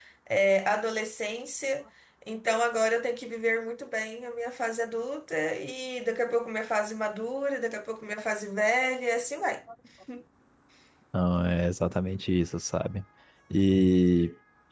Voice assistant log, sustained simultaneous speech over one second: none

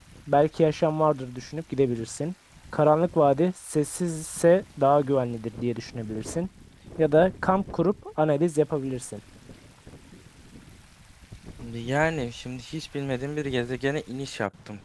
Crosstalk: none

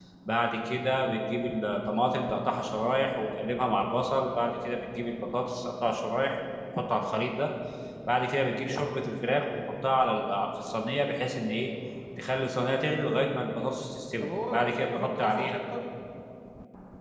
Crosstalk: present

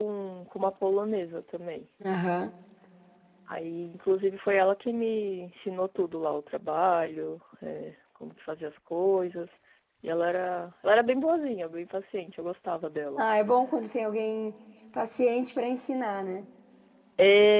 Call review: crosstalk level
none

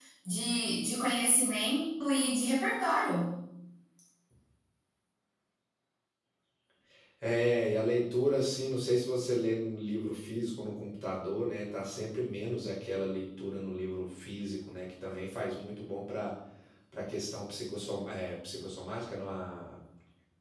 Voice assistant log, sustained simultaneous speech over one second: none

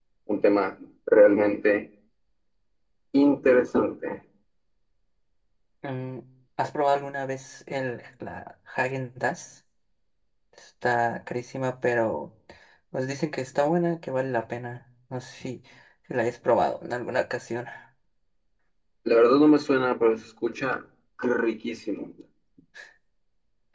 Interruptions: none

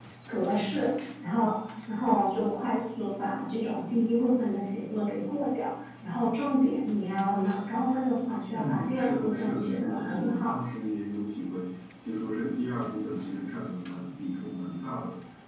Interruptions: present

